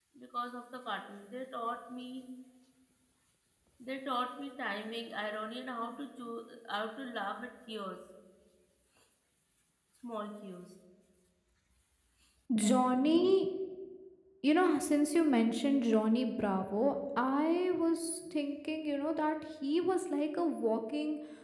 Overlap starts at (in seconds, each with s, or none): none